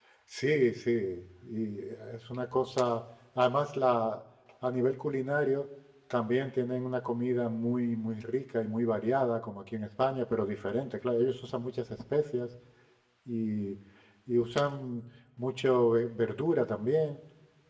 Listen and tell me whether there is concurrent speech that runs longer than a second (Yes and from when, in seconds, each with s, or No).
No